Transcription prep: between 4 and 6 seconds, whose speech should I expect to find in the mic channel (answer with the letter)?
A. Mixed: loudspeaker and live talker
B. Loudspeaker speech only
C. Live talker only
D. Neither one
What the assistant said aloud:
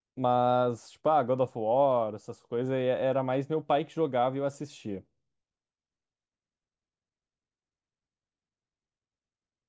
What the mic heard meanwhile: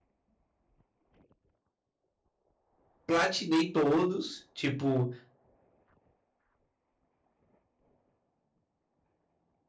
C